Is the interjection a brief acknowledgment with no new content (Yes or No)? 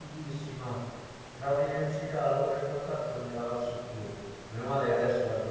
Yes